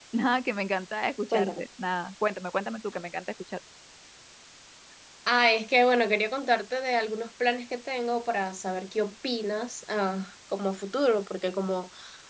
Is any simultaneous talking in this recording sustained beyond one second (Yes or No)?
No